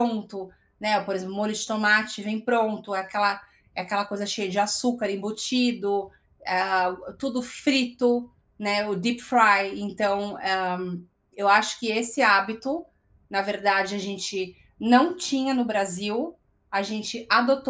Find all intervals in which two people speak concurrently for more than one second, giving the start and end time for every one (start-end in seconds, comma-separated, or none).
none